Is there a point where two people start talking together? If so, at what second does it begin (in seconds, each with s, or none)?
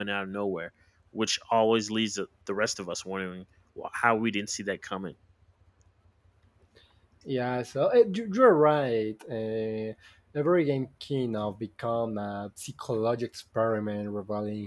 none